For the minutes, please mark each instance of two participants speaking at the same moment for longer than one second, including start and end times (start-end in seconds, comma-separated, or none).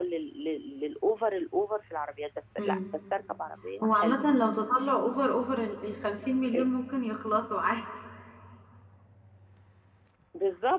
none